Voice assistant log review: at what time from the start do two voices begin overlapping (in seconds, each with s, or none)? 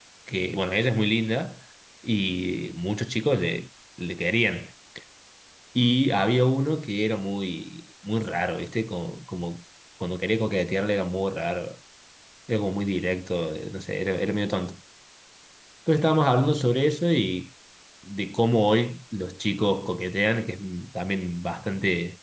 none